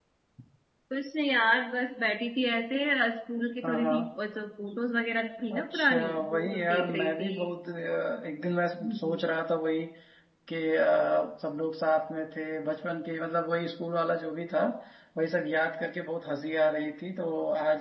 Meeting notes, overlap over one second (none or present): present